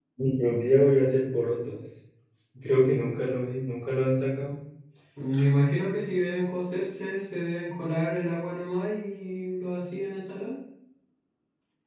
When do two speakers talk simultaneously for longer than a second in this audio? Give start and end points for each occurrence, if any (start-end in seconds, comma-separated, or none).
none